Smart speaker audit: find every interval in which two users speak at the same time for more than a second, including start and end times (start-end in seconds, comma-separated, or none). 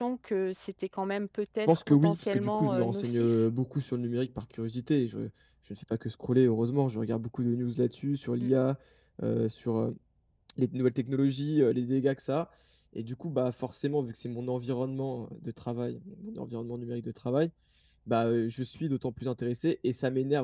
1.7-3.3